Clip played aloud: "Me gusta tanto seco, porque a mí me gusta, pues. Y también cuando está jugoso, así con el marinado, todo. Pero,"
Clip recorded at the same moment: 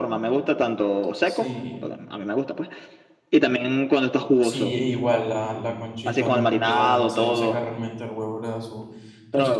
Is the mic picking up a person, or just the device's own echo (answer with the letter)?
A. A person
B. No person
A